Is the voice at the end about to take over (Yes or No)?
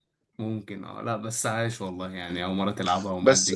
Yes